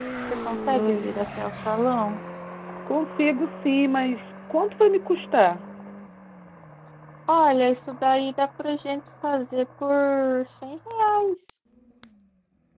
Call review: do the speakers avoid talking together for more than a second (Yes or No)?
Yes